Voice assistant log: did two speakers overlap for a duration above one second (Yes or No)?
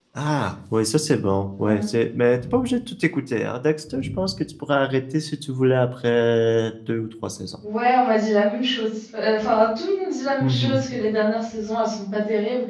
No